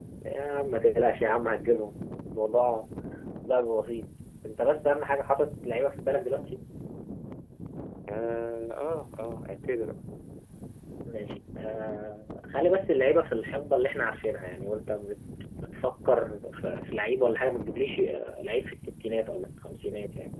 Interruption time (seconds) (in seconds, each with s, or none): none